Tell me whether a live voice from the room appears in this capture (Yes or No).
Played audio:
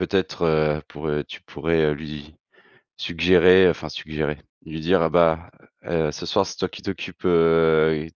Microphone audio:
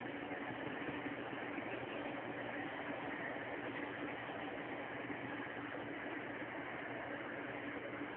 No